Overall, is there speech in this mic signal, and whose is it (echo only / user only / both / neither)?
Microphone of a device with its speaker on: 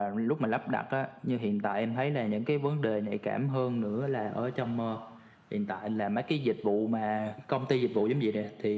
echo only